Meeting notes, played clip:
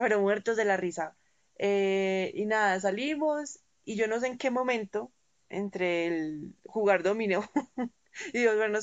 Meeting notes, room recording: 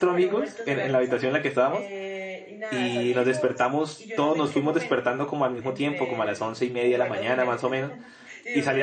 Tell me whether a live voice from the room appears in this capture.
Yes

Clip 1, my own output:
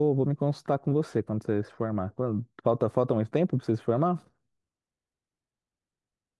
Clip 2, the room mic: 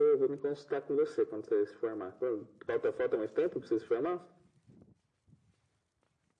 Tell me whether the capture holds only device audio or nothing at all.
Yes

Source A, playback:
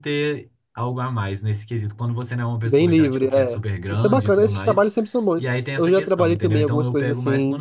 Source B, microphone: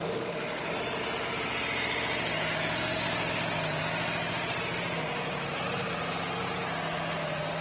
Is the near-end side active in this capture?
No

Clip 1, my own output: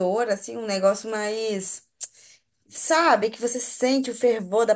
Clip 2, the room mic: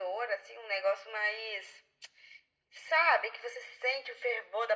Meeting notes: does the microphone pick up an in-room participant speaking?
No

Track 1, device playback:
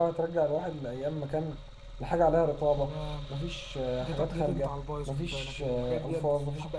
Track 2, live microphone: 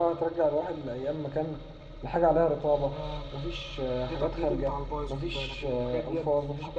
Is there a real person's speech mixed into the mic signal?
No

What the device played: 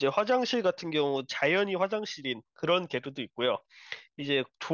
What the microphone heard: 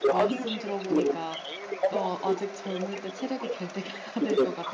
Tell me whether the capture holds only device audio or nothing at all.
No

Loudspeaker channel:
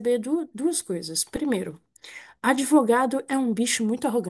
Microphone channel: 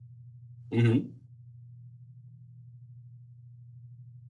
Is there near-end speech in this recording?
Yes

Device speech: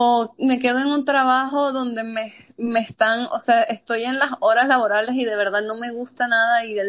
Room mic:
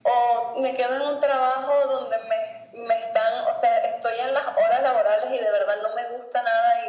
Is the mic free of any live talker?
Yes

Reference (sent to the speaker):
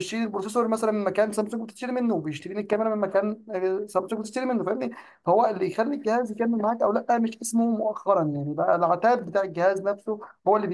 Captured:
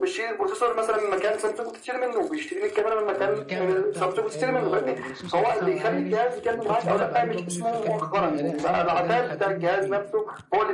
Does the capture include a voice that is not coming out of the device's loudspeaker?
Yes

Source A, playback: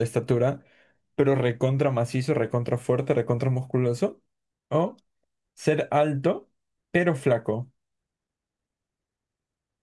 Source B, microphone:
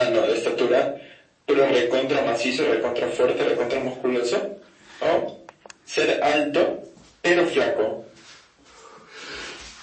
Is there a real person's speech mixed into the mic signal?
No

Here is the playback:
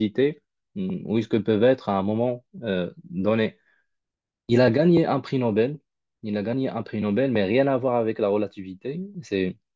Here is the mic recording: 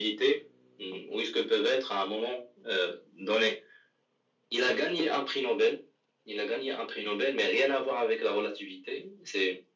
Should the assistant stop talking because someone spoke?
No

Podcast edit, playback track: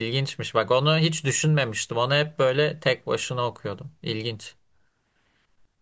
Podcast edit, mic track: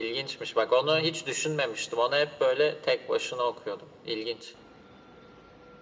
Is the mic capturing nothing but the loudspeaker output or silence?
No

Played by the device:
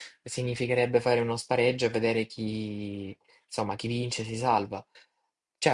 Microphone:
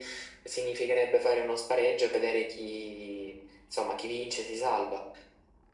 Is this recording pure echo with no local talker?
Yes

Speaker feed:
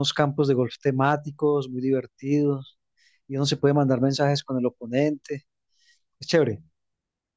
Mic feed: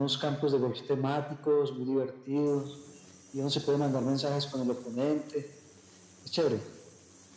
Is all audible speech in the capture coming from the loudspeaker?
Yes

